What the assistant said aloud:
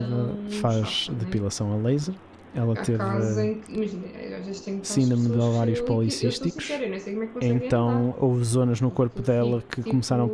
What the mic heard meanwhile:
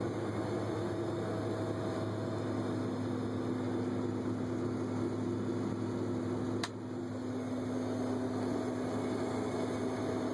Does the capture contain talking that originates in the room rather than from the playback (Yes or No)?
No